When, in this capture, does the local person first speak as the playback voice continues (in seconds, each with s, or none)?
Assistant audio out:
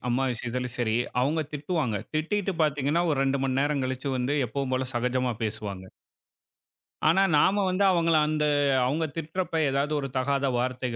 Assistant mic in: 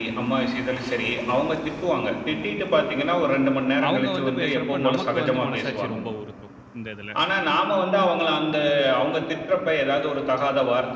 3.9 s